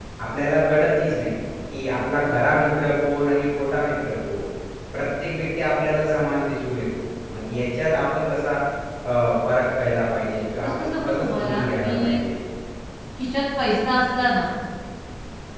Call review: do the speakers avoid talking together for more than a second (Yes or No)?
No